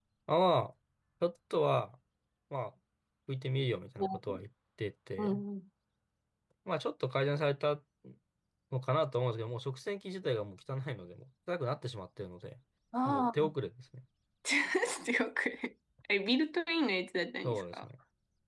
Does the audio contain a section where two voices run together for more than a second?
No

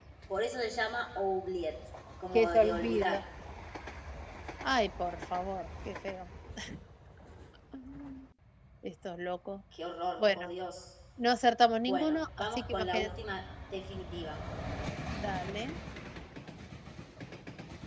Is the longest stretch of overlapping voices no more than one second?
No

